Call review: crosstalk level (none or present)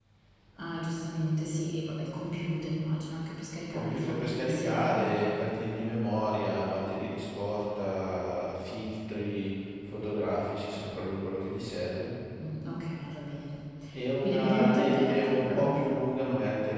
present